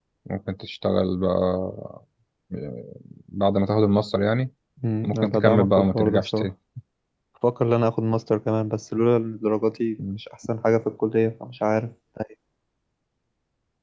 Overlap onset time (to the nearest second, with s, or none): 5 s